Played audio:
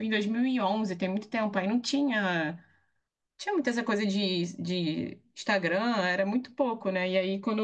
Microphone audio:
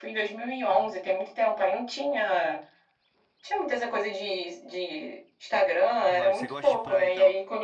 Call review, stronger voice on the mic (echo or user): echo